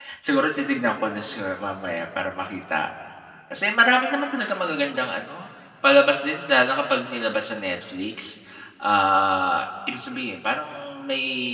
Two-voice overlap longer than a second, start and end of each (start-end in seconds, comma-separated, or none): none